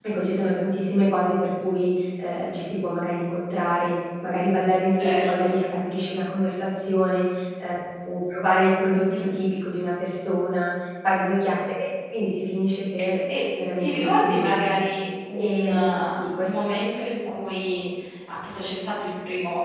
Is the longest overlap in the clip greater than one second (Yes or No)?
Yes